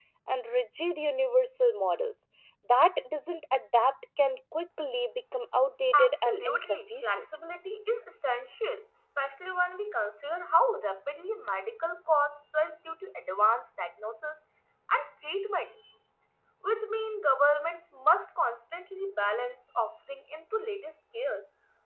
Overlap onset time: 5.9 s

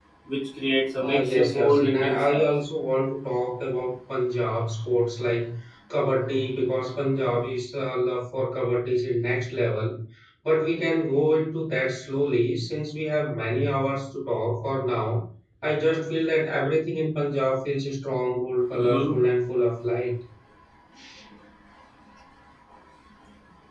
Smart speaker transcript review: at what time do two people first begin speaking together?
1.0 s

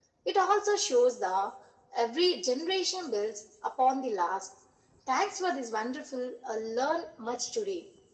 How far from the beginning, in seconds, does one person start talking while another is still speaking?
none

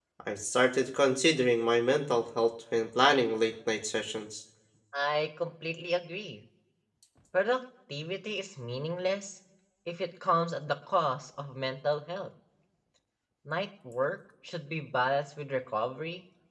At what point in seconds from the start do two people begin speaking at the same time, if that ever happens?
none

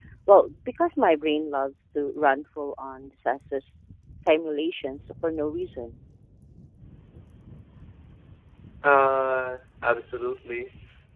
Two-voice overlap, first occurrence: none

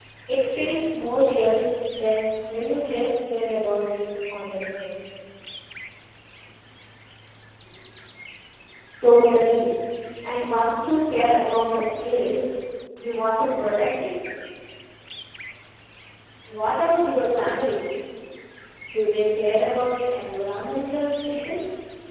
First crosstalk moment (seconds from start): none

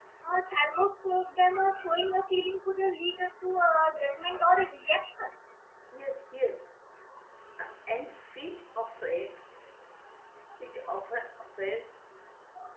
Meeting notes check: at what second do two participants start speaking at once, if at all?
none

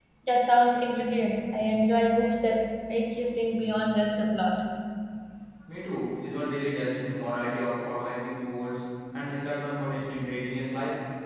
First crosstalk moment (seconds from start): none

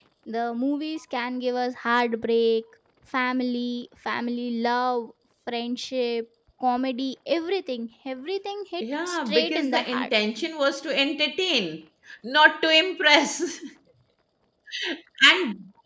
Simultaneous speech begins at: 8.8 s

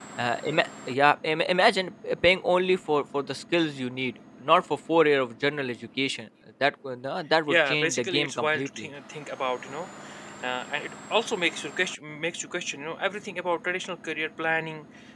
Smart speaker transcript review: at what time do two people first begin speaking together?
7.5 s

